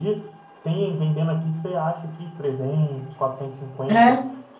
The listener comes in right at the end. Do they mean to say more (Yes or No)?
No